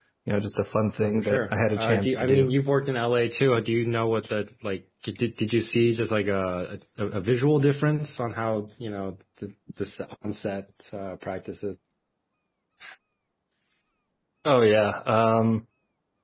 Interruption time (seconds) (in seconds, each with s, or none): 1.0 s